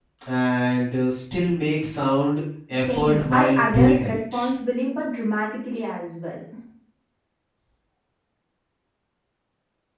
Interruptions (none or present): present